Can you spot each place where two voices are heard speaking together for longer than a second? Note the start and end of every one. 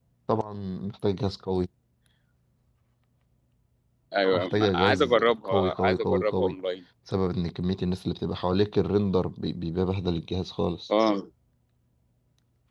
4.3-6.6

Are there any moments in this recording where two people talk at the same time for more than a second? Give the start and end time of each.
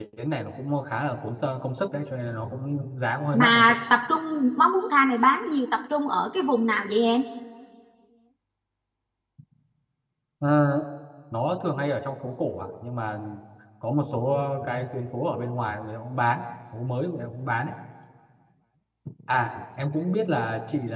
none

